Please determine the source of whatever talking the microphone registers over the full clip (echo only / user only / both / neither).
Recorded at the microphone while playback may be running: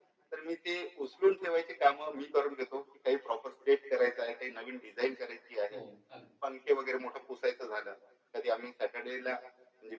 both